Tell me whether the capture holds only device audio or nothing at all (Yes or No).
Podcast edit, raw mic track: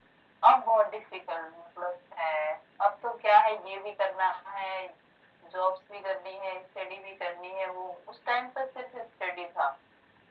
Yes